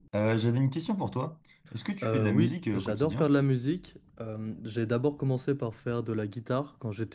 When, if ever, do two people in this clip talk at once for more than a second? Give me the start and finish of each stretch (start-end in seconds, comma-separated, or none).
2.0-3.3